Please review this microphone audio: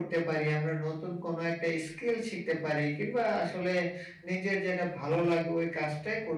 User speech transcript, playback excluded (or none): none